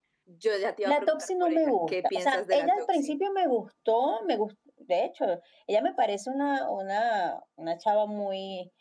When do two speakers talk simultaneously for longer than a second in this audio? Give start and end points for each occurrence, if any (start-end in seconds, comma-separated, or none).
0.8-3.1